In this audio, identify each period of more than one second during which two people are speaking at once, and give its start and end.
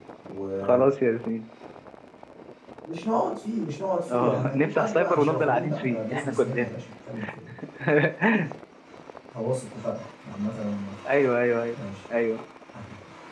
4.1-6.7

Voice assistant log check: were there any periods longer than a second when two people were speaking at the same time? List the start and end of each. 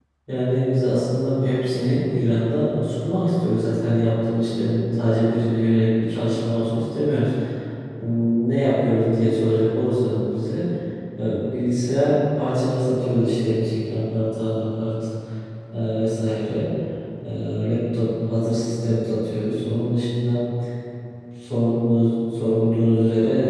none

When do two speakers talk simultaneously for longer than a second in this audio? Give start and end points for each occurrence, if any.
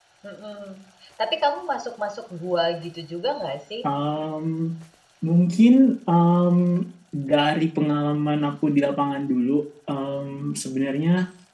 none

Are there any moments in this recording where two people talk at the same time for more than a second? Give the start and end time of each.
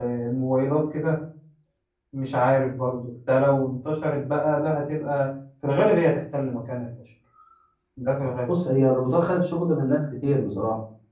none

